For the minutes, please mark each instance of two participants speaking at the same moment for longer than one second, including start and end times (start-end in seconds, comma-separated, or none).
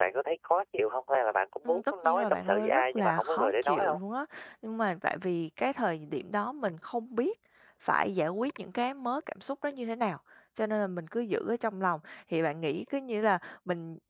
1.6-4.0